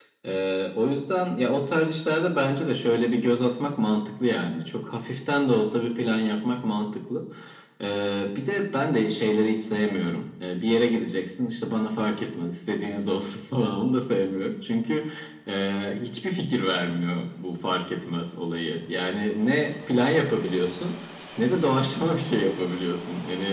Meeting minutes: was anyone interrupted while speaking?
No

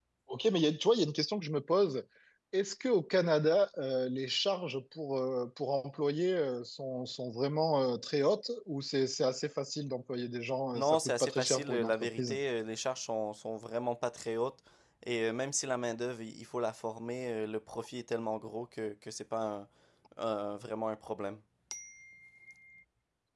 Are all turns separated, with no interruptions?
No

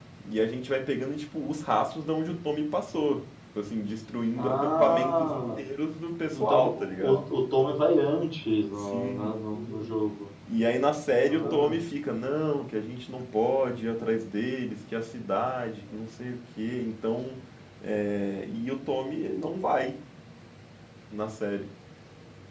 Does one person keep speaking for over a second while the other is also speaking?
Yes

